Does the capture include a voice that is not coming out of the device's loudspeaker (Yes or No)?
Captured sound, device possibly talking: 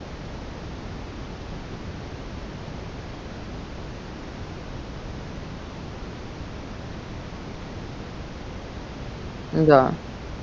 Yes